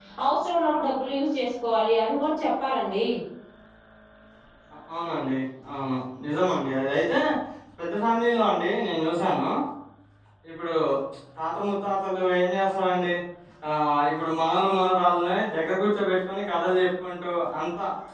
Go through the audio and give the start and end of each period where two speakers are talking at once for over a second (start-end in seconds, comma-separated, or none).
none